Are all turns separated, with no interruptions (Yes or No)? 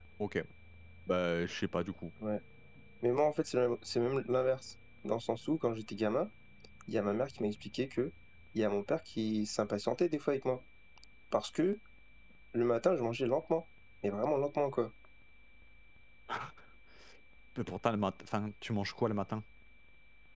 Yes